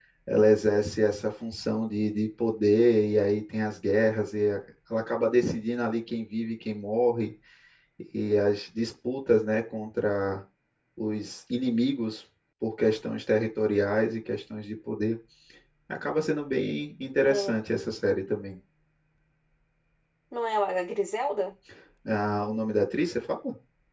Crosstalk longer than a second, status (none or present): none